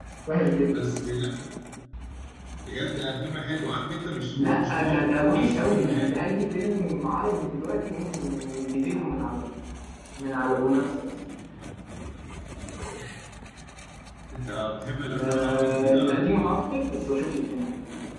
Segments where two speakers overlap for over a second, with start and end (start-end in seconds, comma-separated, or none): 4.4-6.2, 15.2-16.5